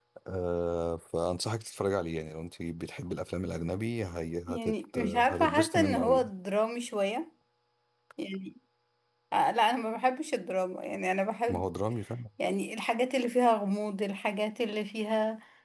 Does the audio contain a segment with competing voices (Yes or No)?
Yes